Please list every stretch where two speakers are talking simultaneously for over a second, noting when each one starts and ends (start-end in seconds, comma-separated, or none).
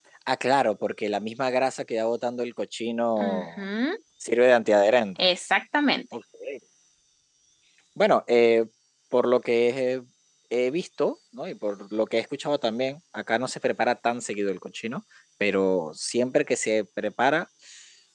none